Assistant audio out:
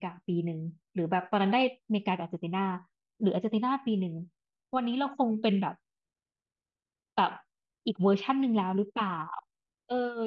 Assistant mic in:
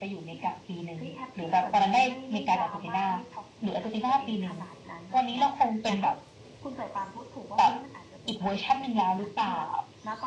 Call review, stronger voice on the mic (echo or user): echo